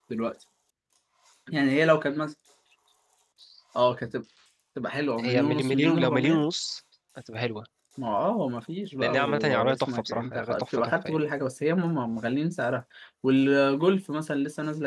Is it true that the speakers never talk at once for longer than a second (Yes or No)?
No